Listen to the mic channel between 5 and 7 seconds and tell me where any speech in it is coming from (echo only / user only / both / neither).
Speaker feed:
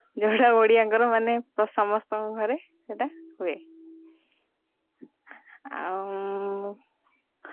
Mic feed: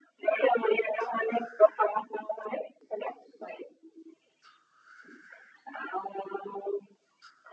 echo only